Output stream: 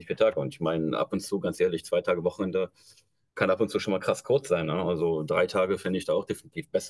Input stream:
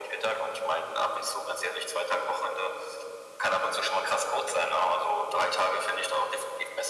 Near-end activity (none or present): none